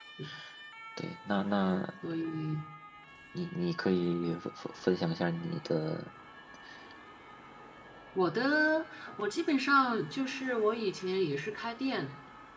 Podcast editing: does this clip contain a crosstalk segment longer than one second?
No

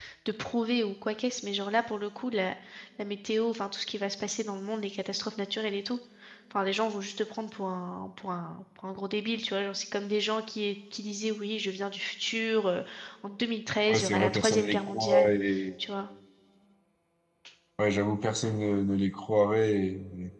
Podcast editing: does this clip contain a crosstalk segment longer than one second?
Yes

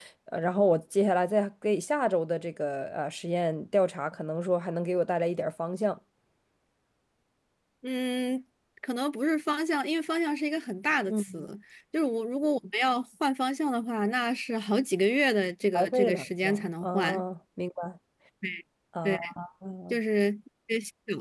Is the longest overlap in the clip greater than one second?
Yes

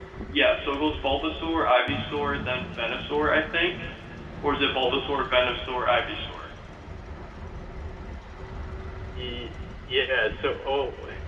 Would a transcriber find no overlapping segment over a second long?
Yes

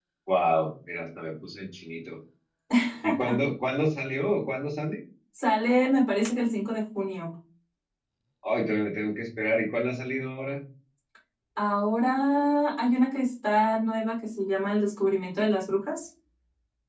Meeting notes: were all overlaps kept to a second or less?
Yes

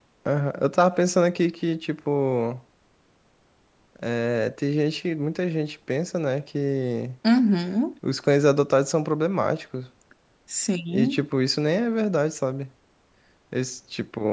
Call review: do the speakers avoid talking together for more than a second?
Yes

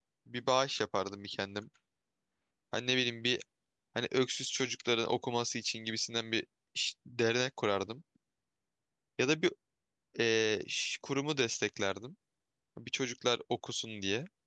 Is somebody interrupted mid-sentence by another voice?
No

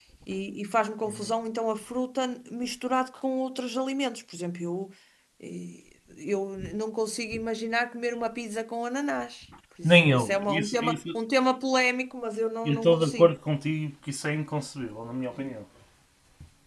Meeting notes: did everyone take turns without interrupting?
No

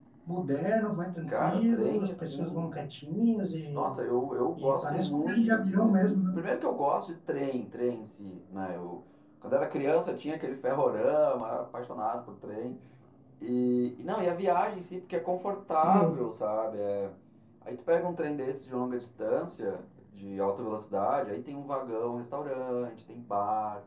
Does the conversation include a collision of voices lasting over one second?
Yes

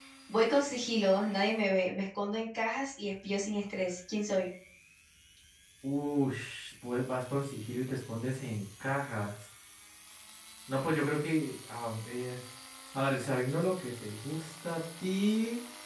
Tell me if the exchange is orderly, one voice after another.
Yes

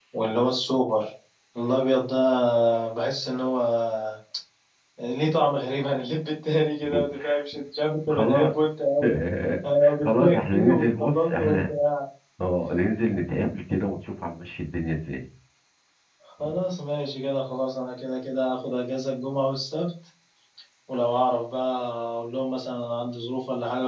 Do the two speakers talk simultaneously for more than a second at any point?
Yes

